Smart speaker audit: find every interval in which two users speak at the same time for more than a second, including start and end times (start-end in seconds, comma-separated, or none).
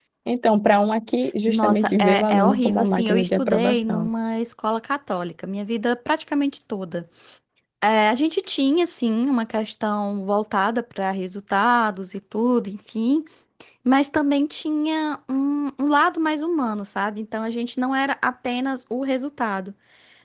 1.5-4.1